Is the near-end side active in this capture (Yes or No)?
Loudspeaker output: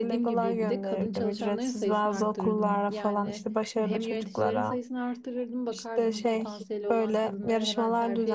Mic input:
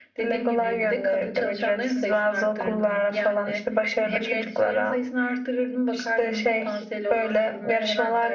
No